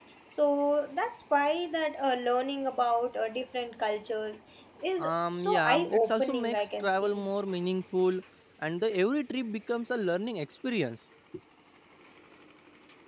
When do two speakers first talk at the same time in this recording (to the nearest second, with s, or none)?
5 s